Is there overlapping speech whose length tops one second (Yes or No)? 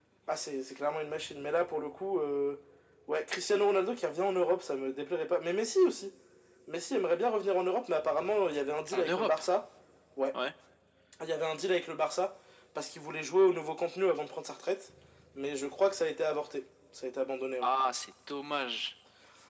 No